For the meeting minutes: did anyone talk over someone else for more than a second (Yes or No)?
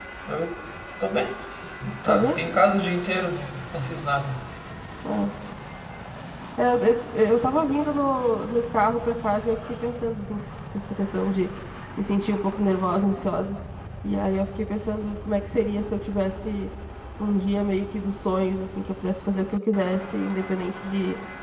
No